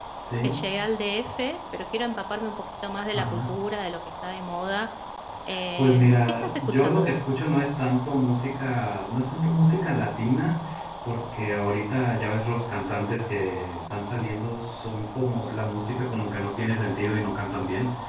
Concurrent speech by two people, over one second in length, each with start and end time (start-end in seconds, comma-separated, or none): 5.8-7.2